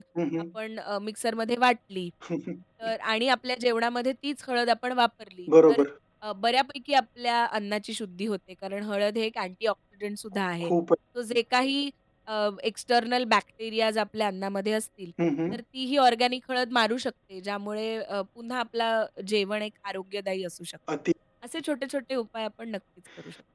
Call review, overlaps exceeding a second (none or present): none